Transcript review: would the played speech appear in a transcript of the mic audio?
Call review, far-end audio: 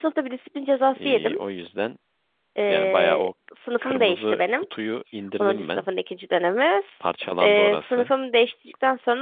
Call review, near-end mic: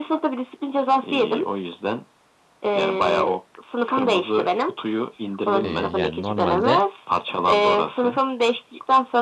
Yes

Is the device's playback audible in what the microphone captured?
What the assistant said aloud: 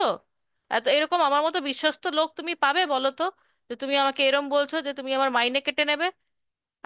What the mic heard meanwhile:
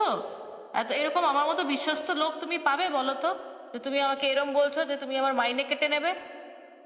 Yes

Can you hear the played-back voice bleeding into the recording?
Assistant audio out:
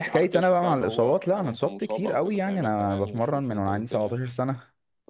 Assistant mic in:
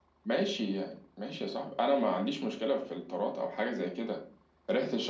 No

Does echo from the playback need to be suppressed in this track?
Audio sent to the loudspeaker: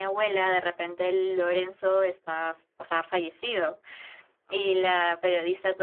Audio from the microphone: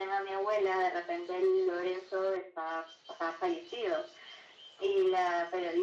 Yes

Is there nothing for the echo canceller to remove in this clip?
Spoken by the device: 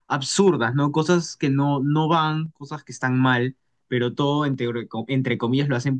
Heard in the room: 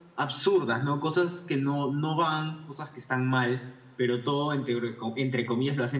No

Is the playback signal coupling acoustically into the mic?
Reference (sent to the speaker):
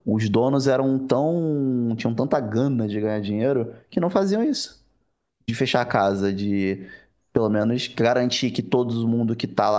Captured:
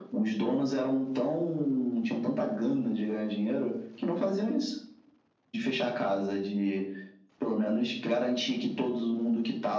Yes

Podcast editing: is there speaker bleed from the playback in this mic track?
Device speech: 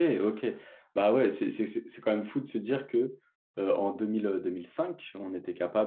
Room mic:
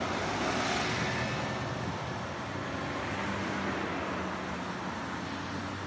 No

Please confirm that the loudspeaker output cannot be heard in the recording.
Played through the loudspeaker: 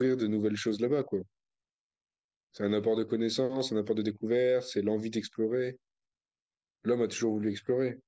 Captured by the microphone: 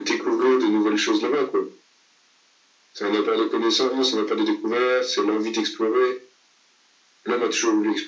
No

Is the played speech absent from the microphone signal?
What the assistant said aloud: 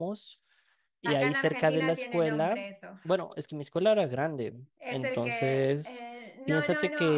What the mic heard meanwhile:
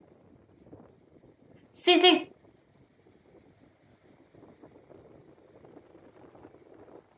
Yes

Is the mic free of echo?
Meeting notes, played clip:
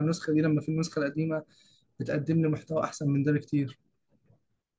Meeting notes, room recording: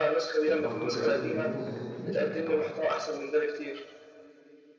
No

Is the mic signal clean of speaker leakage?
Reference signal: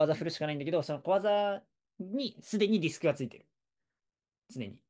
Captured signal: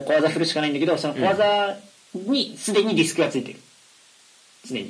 No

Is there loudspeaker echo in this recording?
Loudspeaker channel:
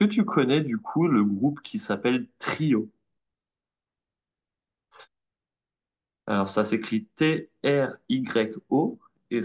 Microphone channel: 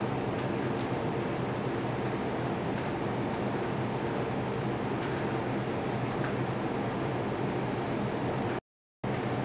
No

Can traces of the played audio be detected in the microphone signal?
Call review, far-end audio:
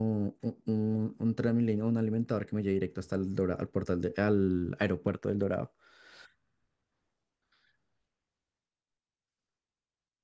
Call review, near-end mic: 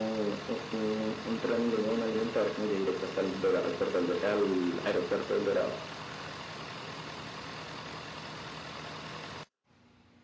Yes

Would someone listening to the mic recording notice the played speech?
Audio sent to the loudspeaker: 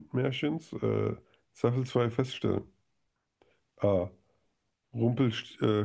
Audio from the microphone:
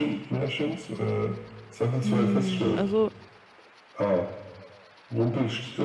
Yes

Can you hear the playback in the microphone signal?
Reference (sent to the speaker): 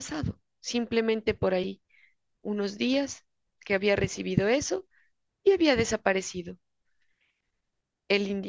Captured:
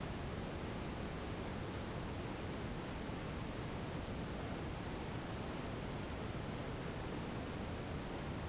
No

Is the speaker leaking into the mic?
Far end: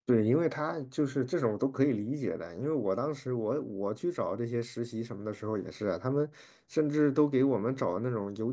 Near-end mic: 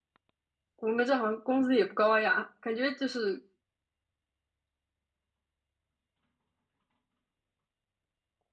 No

